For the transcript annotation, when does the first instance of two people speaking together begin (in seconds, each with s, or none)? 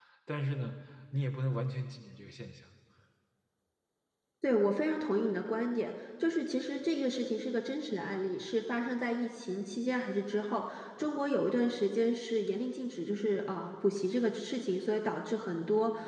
none